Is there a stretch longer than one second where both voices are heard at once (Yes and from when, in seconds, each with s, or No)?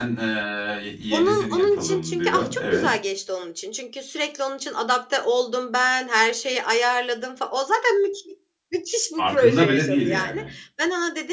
Yes, from 1.1 s